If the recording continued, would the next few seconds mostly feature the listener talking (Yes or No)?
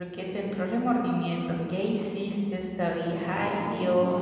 Yes